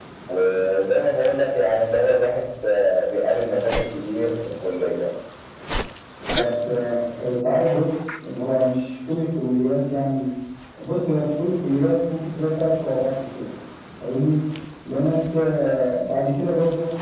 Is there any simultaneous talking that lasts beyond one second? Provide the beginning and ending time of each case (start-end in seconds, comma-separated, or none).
none